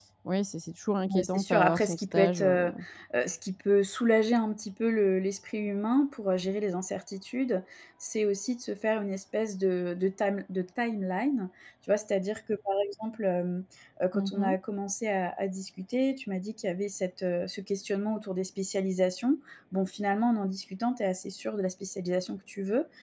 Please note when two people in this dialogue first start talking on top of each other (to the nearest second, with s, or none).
1 s